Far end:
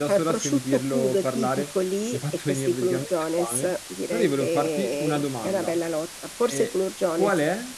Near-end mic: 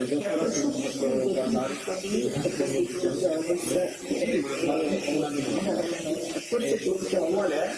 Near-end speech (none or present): none